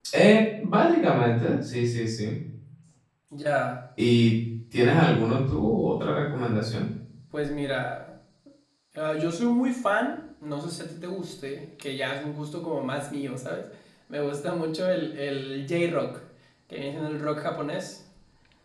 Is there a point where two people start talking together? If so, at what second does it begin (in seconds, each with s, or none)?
none